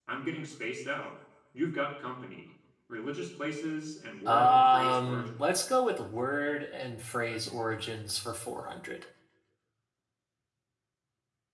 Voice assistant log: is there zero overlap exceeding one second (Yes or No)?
No